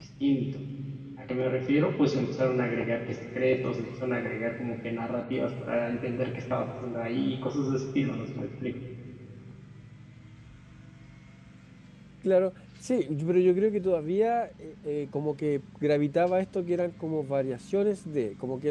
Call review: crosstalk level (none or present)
none